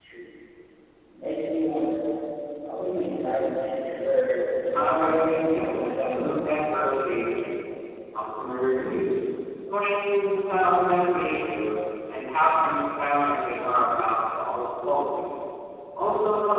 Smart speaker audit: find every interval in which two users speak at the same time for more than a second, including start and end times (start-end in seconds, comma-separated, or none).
4.7-6.4